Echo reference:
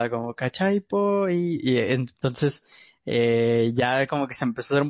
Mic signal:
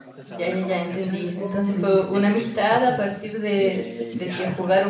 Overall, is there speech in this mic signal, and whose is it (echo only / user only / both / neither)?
both